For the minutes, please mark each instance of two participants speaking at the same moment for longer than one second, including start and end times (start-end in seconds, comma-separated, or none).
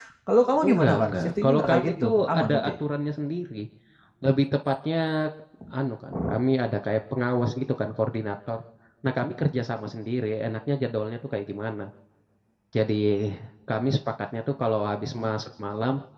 0.6-2.7